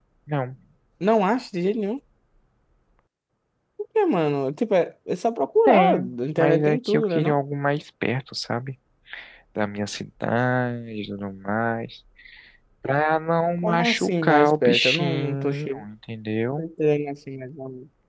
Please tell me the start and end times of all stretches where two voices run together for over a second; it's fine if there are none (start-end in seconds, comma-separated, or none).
5.7-7.4, 13.6-15.8